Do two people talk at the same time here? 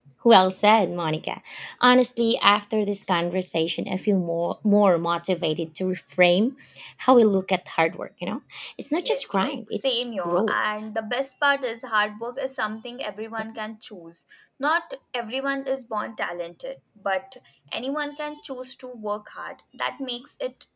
Yes, from 8.9 s

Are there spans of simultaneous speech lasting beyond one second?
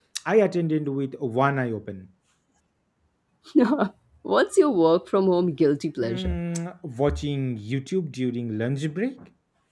No

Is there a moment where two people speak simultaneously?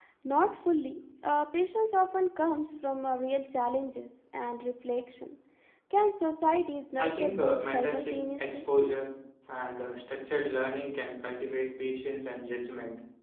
Yes, from 7.0 s

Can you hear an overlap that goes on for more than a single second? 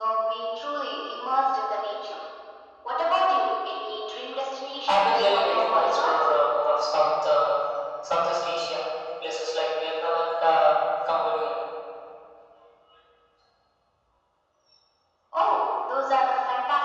Yes, from 4.9 s

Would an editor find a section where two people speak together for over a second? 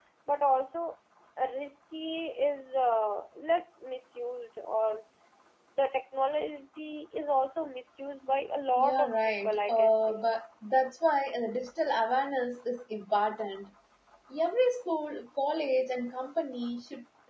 Yes, from 8.8 s

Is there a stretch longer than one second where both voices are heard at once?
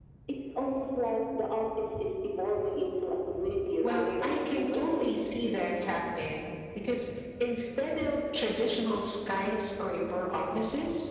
Yes, from 3.8 s

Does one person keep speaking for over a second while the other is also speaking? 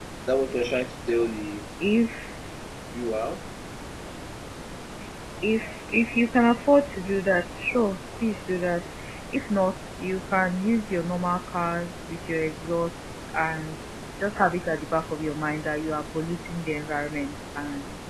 No

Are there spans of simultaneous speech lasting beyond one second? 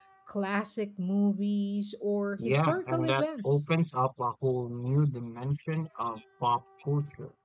Yes, from 2.4 s

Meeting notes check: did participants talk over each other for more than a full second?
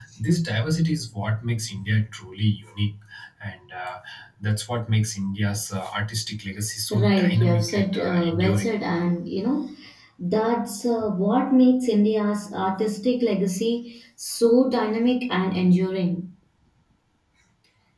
Yes, from 6.9 s

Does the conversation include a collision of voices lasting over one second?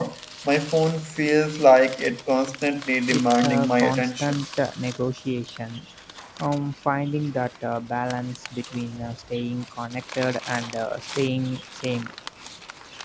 Yes, from 3.1 s

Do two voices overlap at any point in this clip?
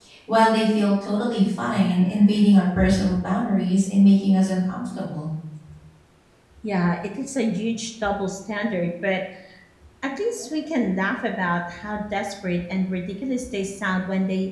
No

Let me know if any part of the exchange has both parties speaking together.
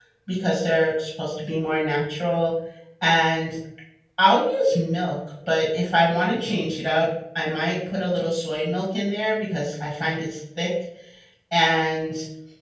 No

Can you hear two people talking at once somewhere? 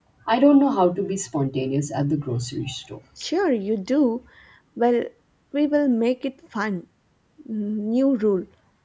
No

